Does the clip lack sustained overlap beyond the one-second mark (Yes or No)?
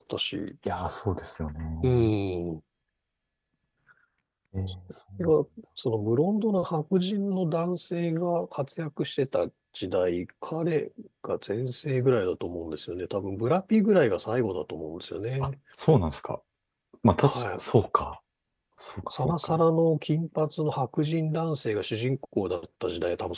Yes